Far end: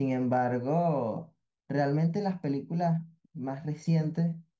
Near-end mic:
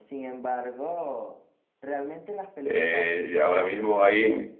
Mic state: both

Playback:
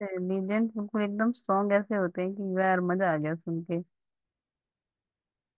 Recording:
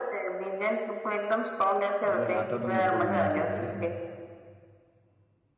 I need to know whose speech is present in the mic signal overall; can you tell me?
both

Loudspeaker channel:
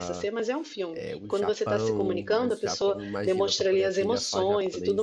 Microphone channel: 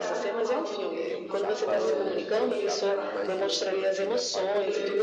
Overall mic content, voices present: both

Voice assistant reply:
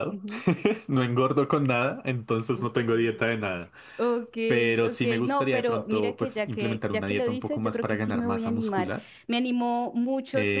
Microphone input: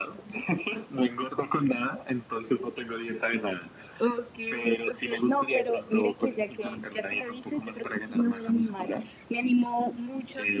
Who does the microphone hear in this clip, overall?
echo only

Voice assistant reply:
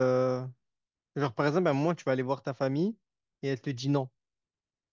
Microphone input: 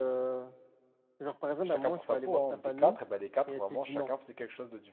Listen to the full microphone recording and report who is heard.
both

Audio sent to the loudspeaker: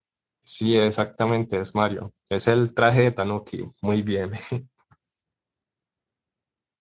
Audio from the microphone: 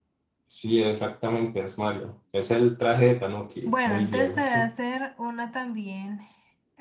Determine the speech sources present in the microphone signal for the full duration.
both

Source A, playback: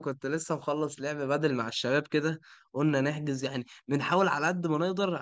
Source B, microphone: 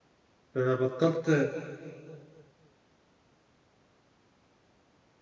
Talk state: user only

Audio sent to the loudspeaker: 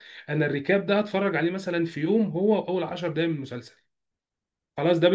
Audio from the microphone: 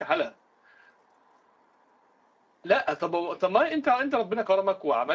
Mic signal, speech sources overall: user only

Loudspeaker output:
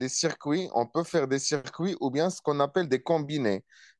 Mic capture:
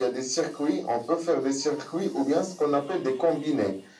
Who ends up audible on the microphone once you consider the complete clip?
echo only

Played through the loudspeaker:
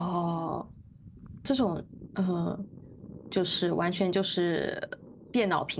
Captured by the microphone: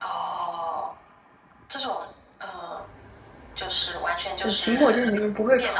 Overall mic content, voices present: both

